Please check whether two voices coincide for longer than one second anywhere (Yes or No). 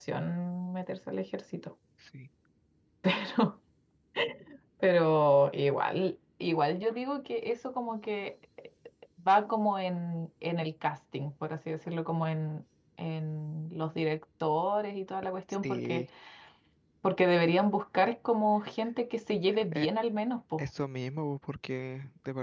No